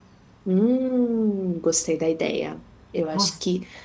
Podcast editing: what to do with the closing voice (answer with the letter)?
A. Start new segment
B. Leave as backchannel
B